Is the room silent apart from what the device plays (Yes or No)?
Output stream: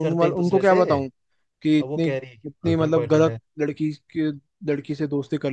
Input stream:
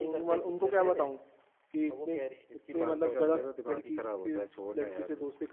No